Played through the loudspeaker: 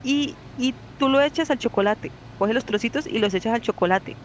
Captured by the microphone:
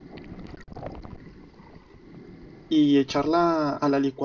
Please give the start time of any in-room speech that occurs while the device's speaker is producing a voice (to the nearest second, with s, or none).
3 s